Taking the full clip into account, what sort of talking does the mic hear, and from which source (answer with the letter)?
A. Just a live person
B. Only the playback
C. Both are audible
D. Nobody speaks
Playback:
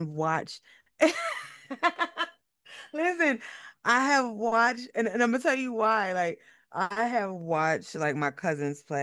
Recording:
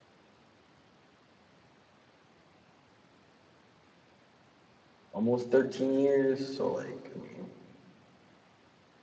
A